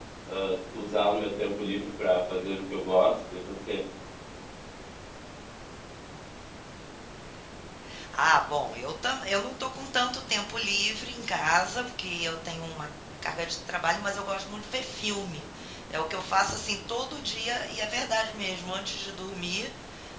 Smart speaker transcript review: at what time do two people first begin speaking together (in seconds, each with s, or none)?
none